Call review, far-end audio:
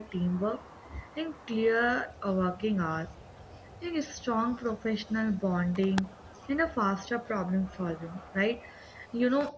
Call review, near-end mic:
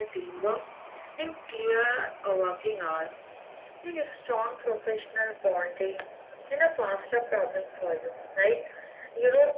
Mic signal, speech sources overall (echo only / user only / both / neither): echo only